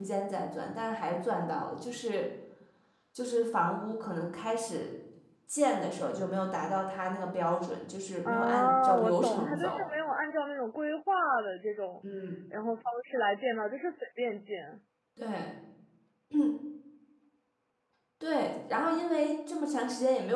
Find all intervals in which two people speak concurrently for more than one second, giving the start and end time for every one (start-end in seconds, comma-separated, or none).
8.2-9.8